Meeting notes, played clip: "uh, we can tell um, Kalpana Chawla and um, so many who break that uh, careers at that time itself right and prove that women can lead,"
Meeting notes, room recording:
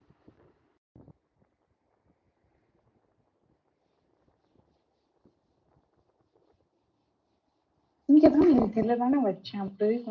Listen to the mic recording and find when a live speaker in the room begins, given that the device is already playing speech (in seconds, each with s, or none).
8.1 s